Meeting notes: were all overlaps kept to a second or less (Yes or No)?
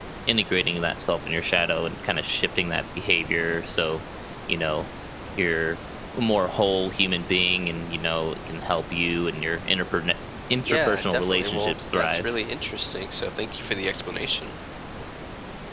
No